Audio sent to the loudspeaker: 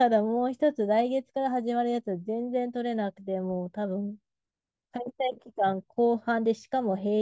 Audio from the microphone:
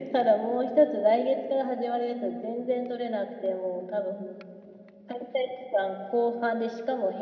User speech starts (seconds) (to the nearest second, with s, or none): none